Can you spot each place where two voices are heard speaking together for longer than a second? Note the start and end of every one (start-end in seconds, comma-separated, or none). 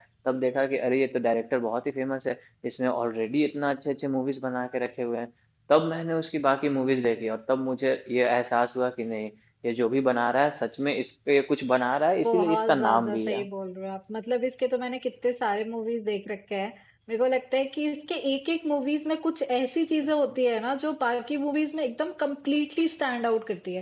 12.3-13.5